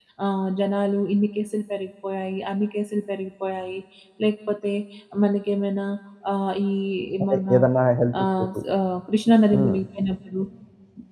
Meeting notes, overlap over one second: none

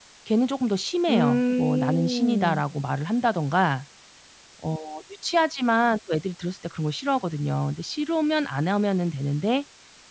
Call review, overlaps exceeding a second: present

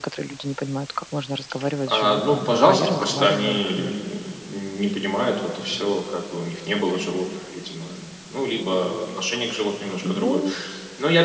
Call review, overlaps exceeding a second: present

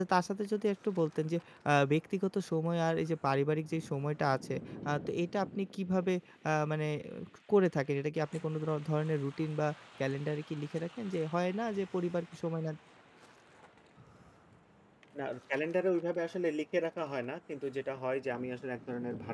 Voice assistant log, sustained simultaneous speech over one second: none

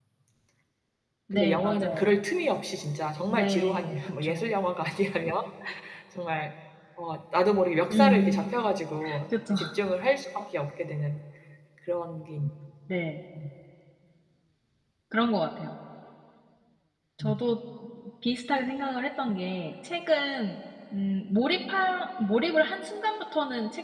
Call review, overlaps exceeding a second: present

